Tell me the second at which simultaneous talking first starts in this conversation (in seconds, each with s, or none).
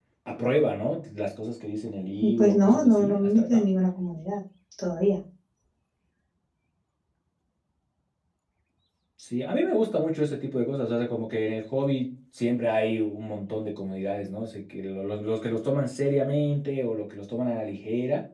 2.2 s